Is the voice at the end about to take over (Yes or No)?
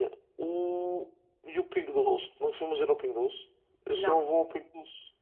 No